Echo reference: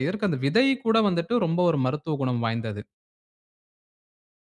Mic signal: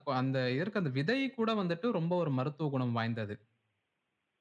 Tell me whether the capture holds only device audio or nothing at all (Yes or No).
Yes